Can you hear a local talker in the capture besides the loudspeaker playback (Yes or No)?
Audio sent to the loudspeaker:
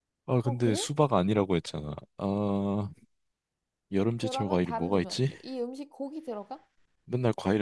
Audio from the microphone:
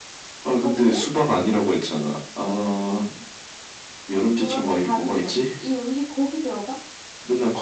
No